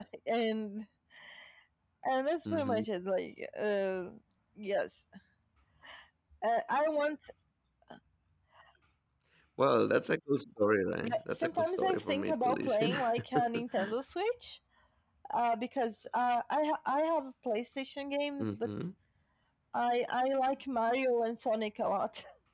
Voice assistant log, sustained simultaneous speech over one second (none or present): present